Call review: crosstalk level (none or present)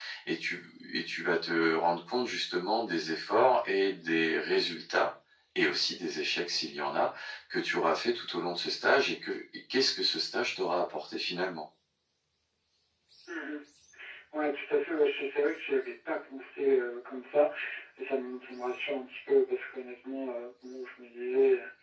none